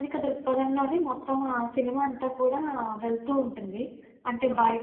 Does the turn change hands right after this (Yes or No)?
No